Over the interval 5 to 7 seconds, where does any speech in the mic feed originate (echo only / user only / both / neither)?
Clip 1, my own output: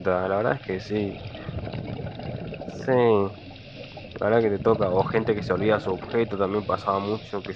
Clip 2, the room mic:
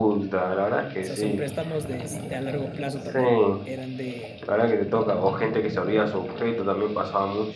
echo only